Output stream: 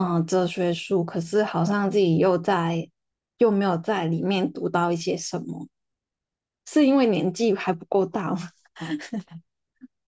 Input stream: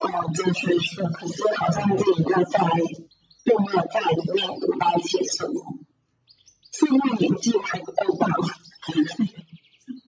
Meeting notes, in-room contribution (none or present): present